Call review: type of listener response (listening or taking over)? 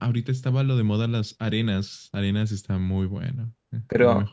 taking over